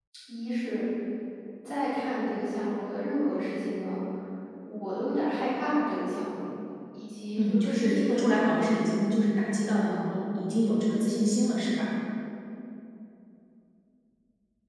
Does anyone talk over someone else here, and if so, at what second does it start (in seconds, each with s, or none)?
7.4 s